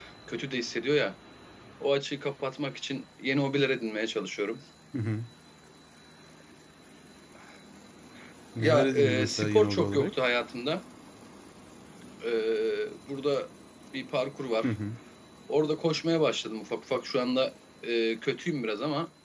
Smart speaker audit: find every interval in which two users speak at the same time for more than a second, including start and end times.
8.6-10.1

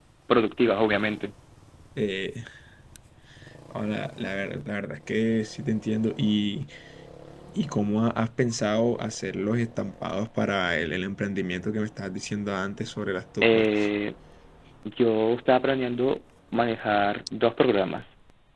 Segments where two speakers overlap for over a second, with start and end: none

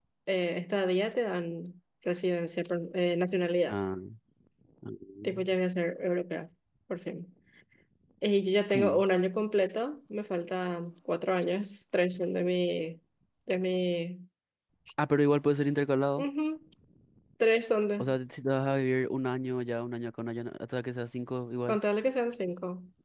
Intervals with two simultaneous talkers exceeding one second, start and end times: none

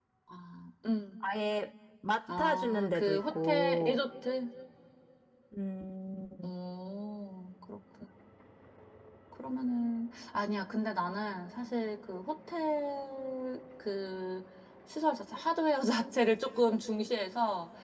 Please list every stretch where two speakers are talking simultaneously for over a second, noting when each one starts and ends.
2.3-4.0

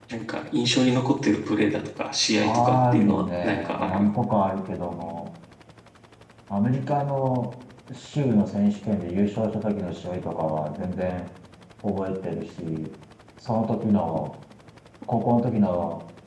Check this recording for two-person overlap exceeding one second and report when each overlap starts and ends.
2.4-4.1

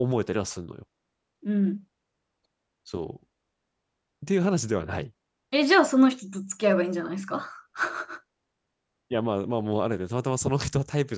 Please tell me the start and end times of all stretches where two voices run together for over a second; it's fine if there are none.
none

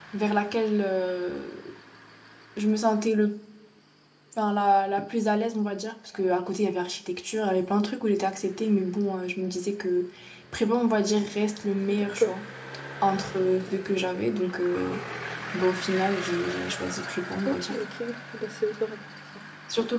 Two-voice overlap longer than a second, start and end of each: none

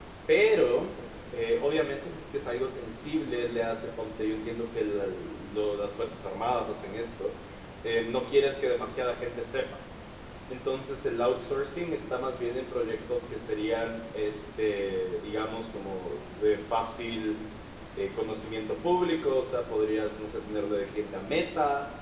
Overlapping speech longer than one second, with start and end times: none

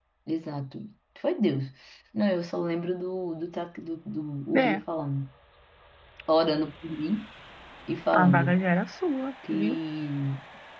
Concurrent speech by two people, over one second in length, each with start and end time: none

